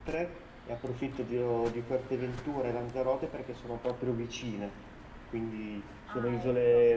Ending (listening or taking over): listening